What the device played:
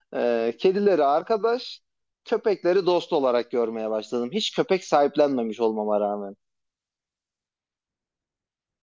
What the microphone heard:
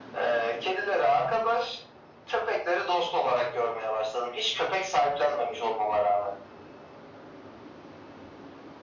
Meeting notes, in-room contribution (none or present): none